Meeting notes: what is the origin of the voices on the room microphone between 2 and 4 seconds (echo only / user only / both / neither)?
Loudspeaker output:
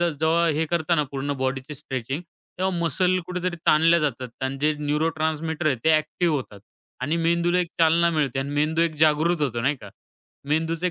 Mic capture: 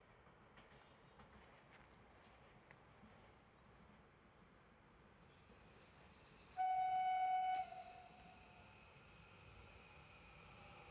neither